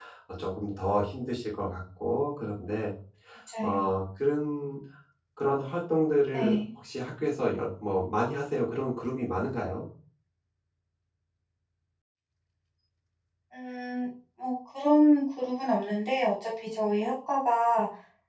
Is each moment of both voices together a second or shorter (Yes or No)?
Yes